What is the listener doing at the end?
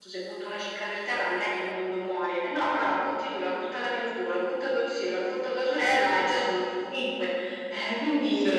taking over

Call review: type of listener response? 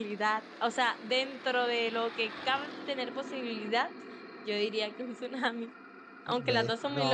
taking over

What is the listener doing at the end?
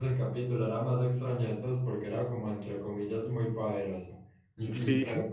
listening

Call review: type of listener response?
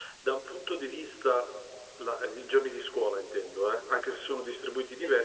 listening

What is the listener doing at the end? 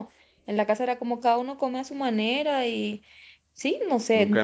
taking over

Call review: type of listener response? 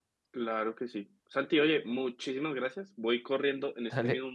listening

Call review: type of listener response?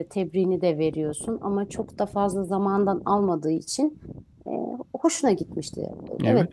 taking over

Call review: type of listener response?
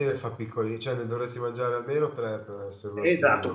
taking over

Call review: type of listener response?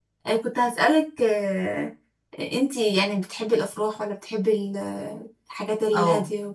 taking over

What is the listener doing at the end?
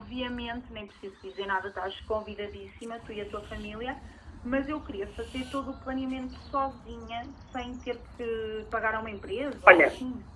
taking over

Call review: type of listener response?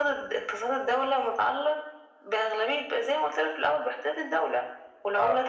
listening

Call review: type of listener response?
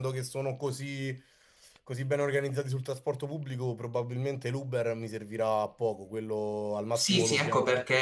taking over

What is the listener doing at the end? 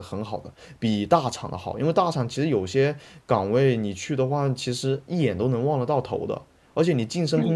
listening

